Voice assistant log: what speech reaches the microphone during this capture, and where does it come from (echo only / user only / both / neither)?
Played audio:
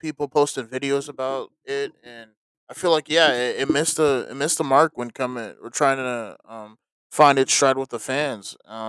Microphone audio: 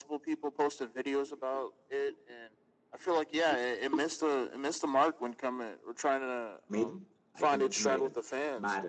both